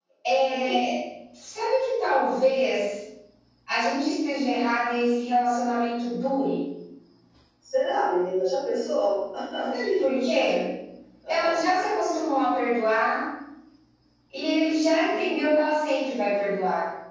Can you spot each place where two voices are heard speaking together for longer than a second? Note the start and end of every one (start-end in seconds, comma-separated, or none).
none